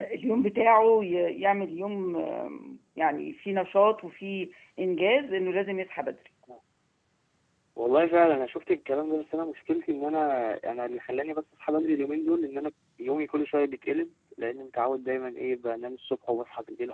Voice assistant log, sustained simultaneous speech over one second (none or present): none